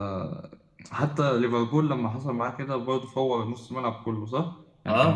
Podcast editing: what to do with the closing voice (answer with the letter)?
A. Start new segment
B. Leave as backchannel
B